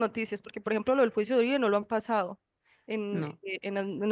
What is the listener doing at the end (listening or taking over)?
listening